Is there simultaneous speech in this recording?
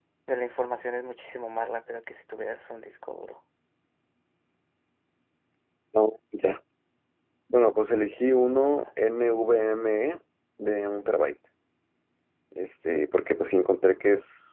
No

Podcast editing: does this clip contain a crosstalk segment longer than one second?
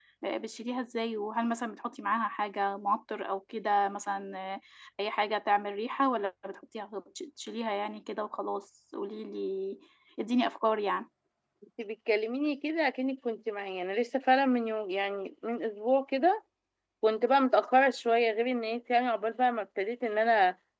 No

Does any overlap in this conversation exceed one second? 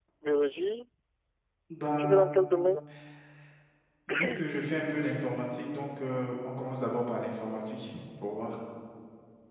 No

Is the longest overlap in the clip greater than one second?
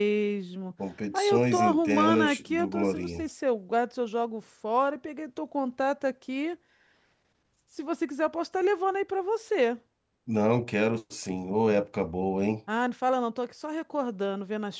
Yes, from 1.1 s

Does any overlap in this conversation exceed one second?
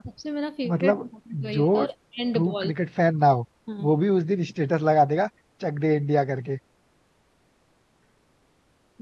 No

